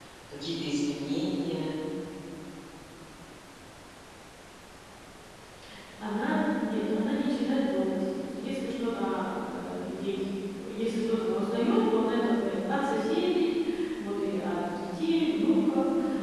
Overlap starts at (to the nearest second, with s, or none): none